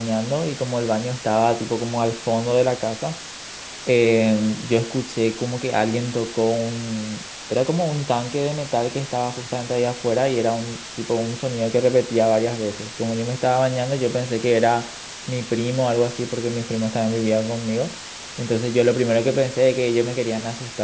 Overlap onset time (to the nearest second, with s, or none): none